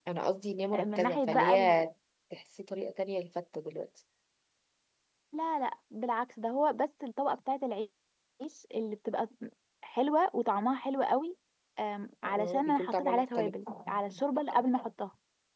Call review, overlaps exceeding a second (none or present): present